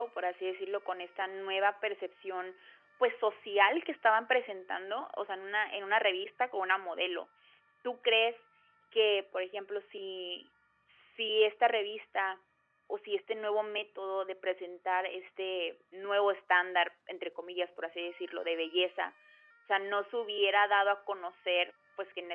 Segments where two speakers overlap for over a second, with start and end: none

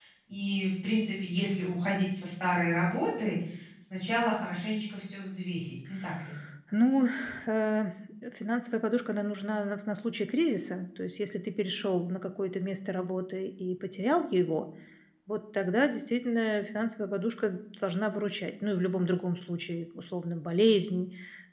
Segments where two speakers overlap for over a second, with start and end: none

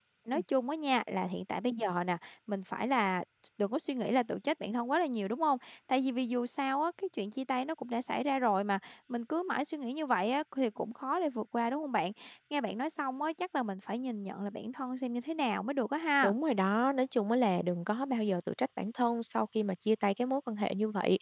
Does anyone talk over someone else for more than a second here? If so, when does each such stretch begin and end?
none

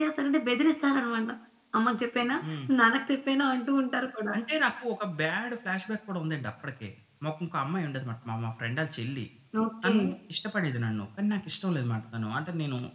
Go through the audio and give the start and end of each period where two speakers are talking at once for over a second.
none

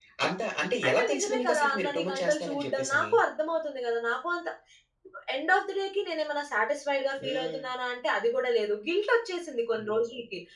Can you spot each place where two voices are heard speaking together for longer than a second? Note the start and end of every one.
0.8-3.1

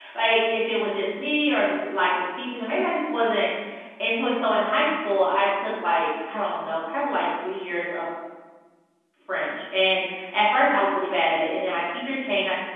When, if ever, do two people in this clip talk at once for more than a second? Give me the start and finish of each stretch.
none

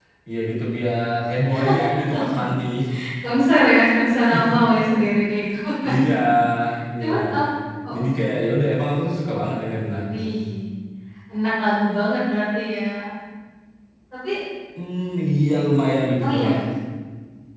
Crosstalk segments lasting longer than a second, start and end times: none

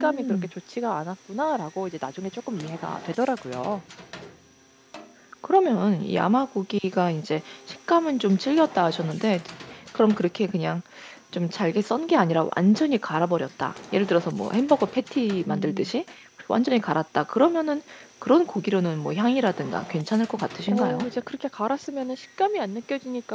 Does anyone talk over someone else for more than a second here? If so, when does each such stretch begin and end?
none

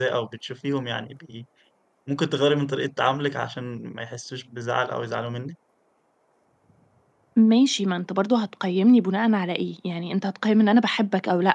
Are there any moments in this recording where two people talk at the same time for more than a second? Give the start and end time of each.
none

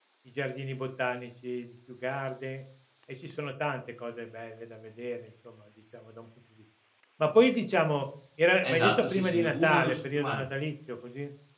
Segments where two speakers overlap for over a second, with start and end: 8.6-10.4

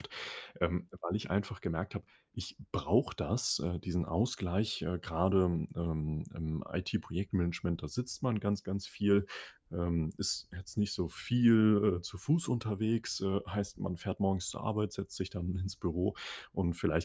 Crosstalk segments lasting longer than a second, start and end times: none

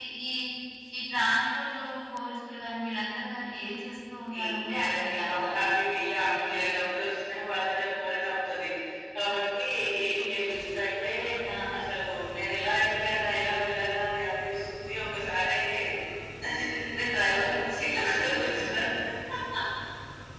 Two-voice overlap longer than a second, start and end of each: 4.4-5.7

